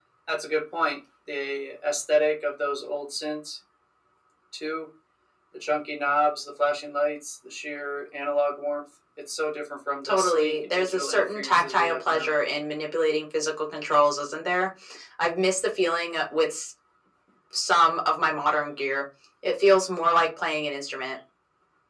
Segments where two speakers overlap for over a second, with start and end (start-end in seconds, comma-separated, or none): 10.0-12.3